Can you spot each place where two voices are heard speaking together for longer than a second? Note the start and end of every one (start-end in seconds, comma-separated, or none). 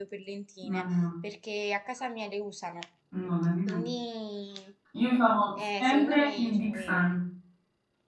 5.6-7.0